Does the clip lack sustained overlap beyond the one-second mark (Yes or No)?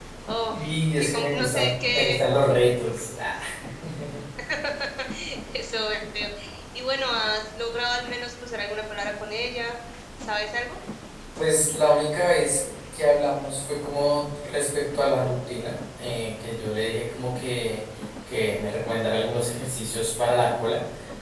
No